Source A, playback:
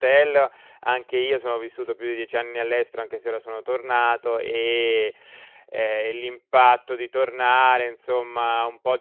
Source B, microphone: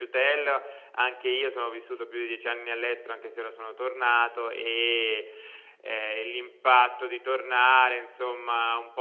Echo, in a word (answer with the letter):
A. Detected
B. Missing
A